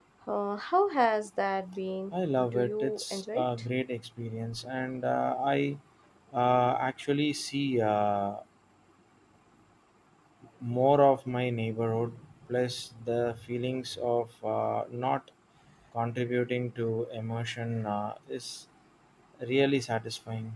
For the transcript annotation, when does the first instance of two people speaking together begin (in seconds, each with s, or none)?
2.1 s